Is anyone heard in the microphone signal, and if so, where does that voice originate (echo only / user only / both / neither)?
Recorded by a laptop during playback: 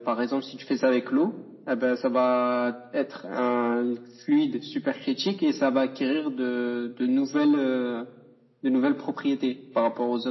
echo only